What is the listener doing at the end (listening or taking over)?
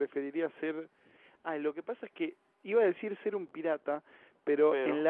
listening